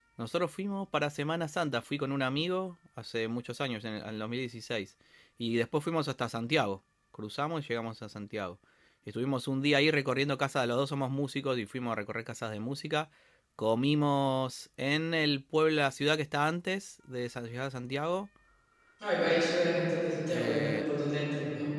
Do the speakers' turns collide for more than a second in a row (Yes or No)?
No